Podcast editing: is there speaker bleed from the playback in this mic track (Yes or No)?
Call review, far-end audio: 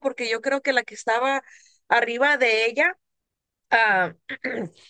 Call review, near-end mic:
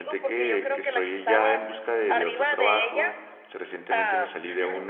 Yes